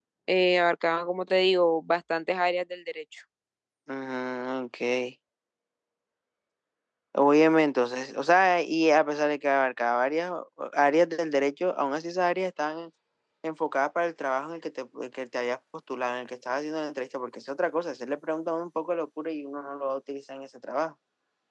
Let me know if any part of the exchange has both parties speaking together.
No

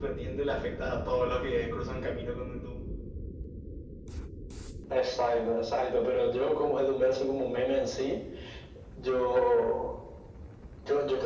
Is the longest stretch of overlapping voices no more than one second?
Yes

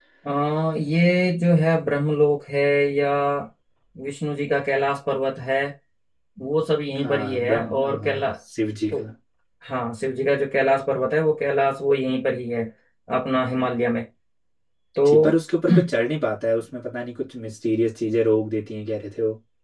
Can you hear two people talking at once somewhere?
Yes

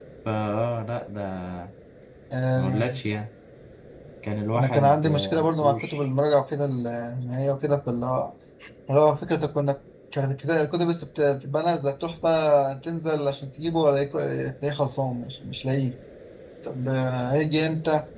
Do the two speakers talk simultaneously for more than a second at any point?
Yes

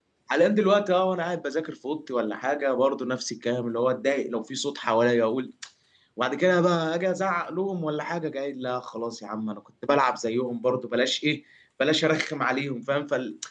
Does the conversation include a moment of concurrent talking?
No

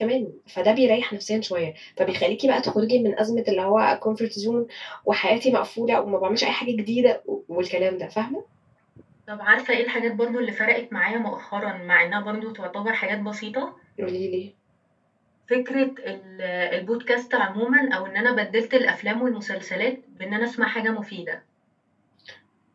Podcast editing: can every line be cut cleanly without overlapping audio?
Yes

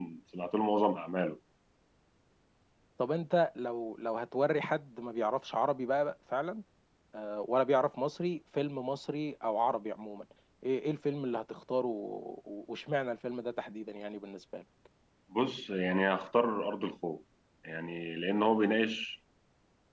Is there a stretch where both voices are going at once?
No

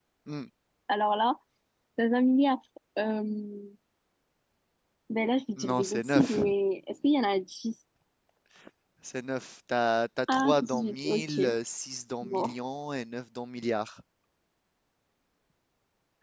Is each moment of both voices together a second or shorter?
No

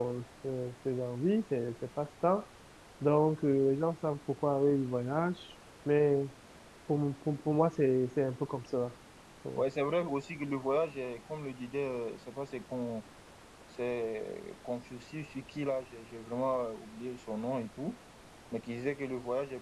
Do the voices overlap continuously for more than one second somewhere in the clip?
No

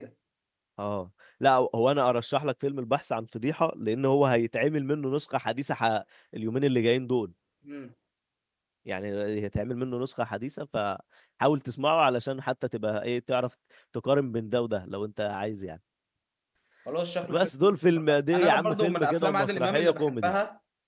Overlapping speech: Yes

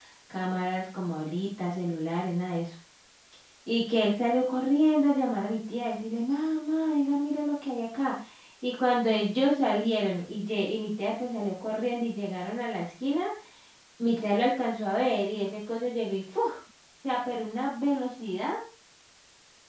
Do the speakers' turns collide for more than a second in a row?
No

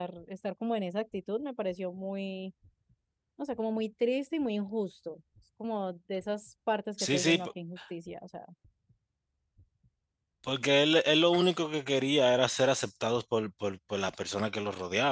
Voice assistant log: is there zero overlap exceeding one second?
Yes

